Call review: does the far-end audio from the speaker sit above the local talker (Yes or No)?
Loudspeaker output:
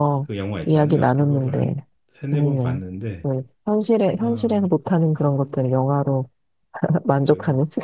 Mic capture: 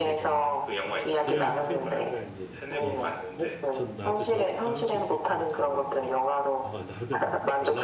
Yes